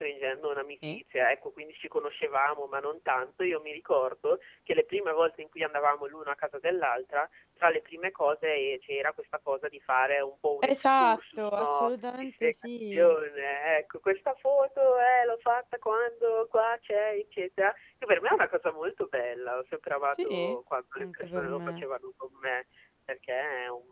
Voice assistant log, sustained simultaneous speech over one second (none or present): present